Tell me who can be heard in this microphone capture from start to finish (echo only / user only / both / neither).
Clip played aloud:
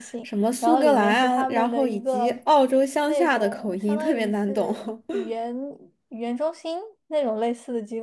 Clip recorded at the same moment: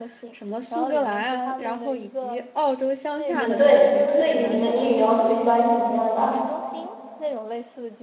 both